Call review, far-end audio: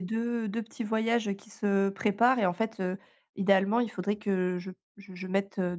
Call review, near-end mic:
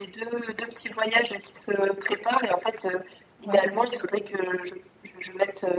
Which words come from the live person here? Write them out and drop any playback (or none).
Ouais,